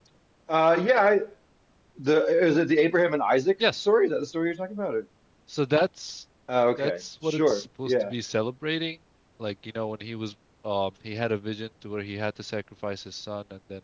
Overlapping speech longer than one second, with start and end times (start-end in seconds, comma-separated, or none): 6.8-8.1